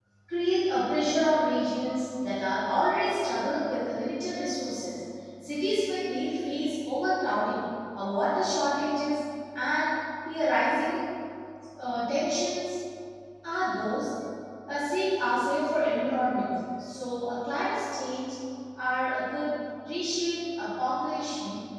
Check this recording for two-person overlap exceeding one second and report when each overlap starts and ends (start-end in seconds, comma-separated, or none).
none